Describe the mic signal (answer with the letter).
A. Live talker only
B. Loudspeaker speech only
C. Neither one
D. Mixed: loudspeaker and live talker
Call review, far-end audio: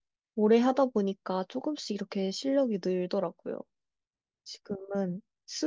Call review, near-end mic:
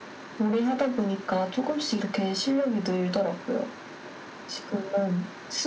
B